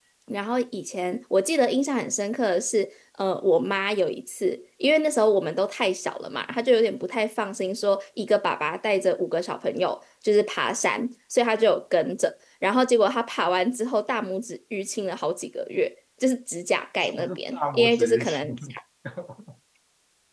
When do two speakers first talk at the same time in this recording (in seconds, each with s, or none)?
17.0 s